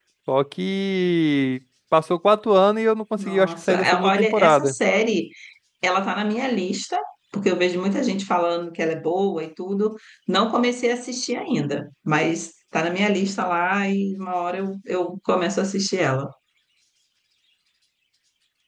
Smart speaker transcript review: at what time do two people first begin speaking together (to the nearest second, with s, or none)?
3 s